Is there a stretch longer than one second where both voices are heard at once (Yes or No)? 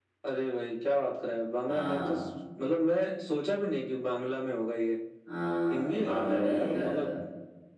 Yes